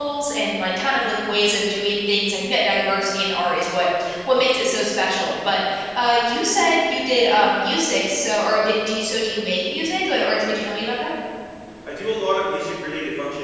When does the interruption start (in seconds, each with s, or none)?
none